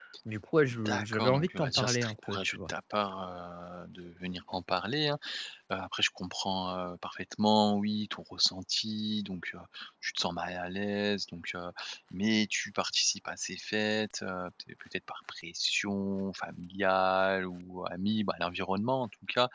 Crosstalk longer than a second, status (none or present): present